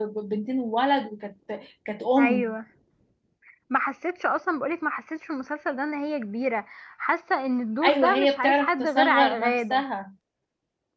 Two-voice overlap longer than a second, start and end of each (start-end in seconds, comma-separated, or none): 7.9-9.8